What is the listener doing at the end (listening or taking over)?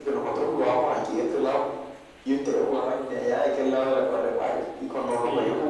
listening